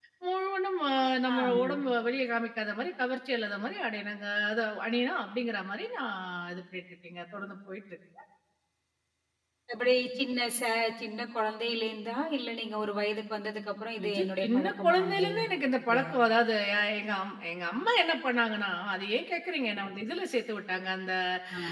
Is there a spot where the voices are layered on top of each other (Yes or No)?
Yes